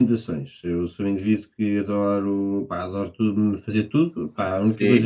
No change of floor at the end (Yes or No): Yes